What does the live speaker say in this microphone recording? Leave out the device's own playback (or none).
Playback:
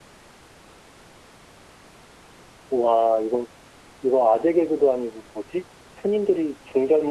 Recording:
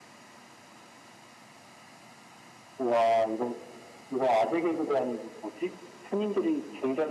none